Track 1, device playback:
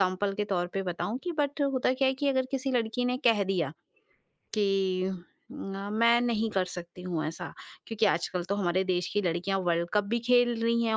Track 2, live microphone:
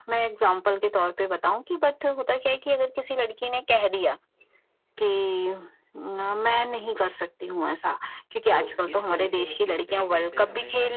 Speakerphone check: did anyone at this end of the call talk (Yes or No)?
Yes